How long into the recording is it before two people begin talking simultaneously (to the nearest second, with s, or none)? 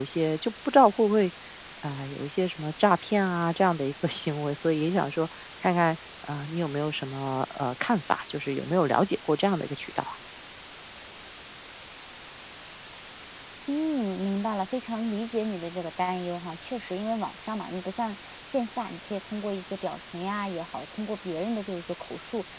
none